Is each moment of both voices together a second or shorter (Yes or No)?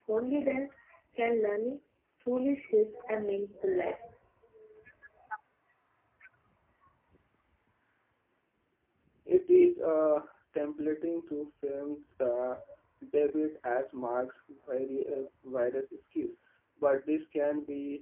Yes